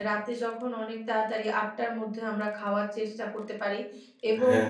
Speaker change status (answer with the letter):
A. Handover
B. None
B